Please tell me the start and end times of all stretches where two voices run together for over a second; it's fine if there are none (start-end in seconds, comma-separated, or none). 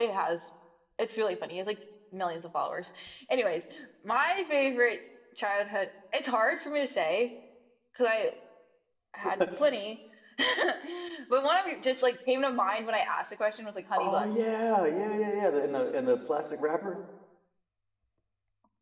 none